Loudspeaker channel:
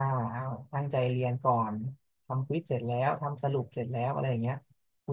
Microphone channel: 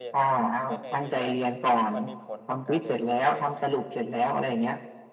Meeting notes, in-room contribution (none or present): present